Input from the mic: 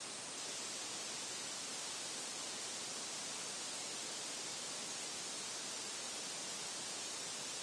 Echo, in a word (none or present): none